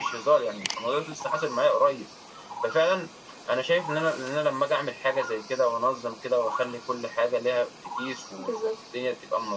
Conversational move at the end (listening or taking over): listening